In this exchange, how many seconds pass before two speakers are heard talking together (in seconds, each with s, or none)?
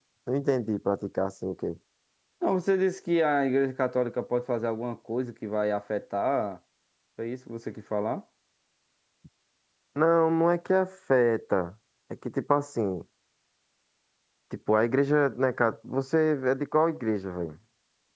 none